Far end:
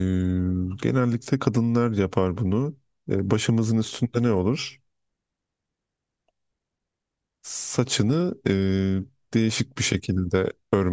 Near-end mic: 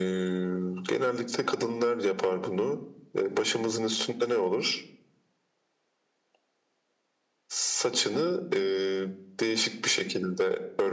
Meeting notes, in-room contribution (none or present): none